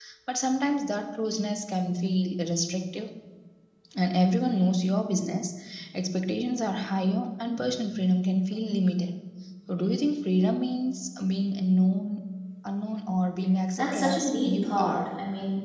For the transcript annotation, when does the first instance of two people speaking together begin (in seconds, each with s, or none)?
13.8 s